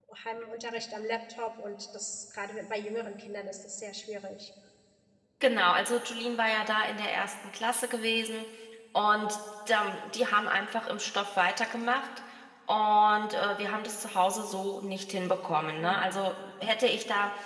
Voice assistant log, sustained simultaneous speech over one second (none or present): none